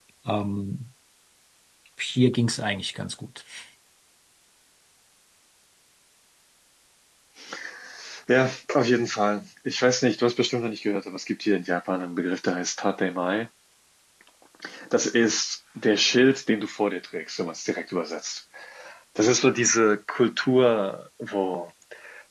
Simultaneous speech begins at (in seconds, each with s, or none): none